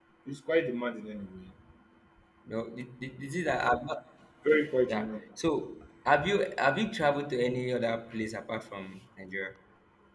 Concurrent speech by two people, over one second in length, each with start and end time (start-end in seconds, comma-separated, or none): none